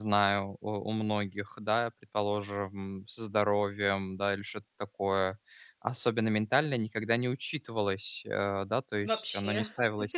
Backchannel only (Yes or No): Yes